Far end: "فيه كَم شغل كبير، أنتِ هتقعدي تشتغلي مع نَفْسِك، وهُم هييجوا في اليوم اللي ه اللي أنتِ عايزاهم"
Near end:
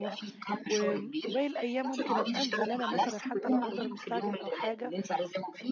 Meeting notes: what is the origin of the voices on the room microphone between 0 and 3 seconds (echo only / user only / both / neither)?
both